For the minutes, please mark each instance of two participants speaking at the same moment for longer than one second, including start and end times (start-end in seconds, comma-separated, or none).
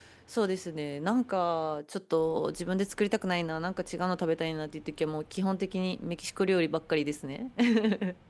none